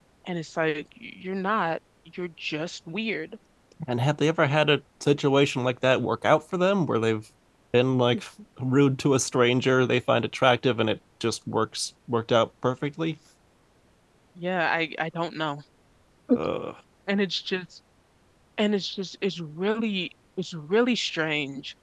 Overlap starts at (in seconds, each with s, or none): none